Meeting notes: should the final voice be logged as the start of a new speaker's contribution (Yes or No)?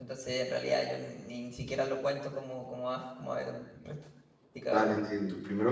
Yes